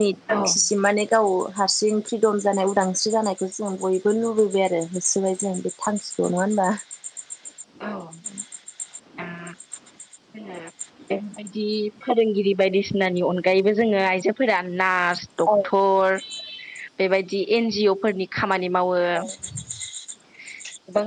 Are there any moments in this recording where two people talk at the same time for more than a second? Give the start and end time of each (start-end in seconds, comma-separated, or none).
none